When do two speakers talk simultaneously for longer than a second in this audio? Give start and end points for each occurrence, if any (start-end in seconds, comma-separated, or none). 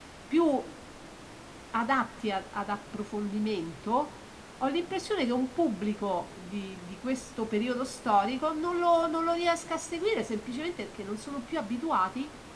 none